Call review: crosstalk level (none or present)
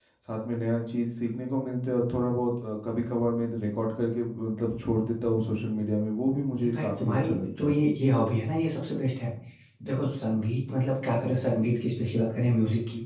present